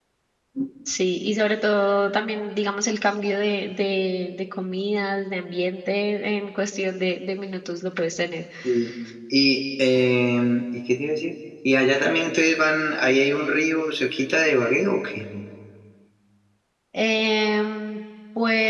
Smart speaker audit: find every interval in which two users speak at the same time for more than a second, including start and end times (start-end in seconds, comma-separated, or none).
none